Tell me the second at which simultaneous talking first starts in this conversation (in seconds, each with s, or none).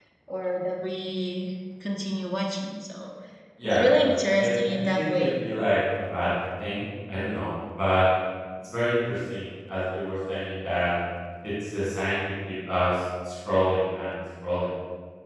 3.6 s